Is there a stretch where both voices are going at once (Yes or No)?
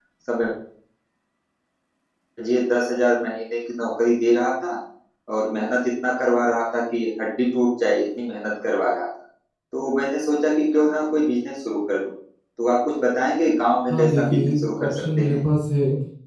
Yes